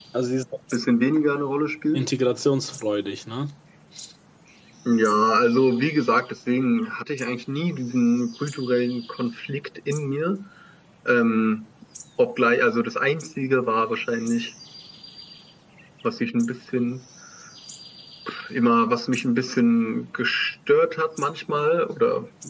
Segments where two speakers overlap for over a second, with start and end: none

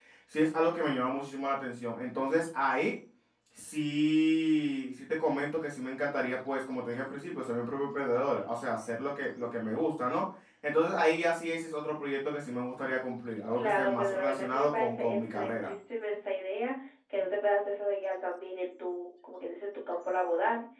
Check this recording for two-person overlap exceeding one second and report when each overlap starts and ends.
13.6-15.7

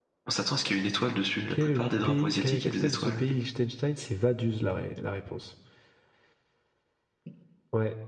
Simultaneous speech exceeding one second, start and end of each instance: 1.5-3.2

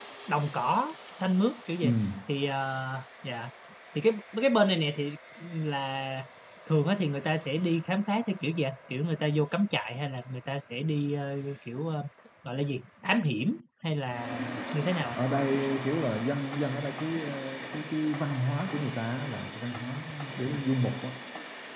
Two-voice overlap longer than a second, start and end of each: none

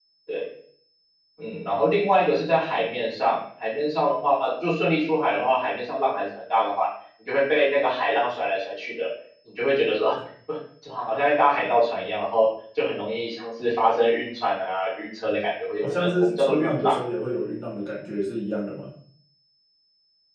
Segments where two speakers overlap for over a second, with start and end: 15.8-17.0

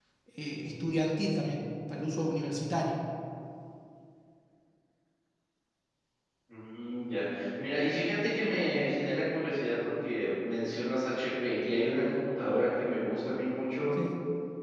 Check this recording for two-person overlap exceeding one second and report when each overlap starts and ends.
none

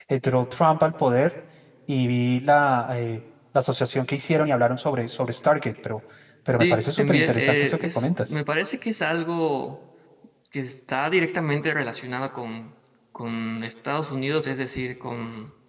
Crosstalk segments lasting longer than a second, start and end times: 6.5-8.3

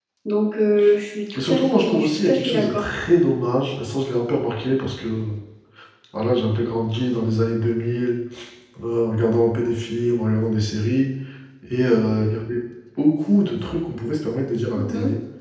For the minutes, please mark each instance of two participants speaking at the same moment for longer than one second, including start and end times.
1.4-2.8

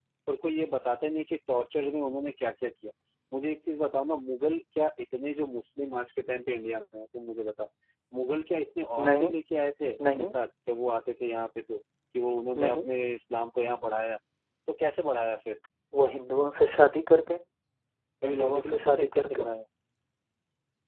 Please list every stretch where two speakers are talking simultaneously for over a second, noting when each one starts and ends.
18.2-19.4

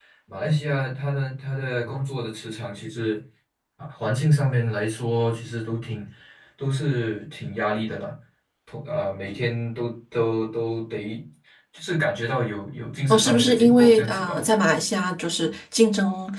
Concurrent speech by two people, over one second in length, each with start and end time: 13.1-14.4

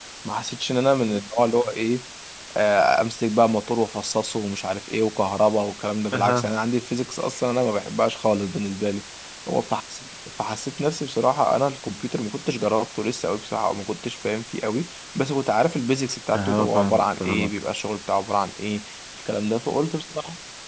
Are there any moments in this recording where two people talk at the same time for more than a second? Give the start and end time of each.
16.3-17.6

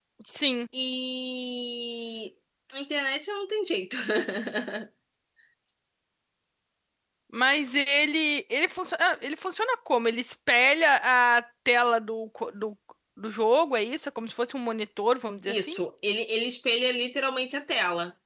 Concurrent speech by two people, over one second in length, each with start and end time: none

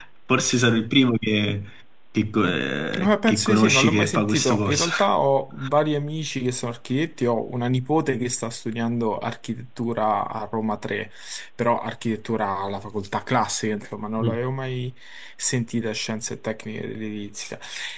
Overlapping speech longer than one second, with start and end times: 2.9-4.9

